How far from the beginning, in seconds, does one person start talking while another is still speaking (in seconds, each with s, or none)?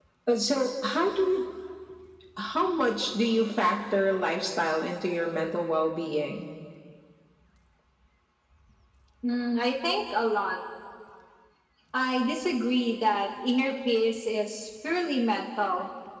none